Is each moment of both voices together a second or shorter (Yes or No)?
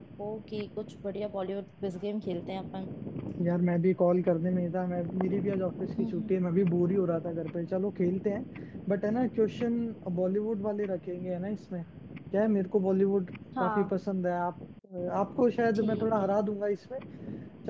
Yes